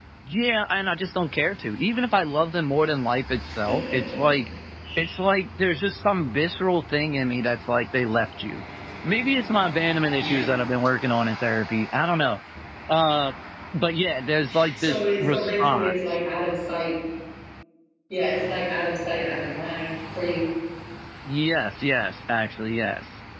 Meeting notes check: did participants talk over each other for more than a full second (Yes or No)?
Yes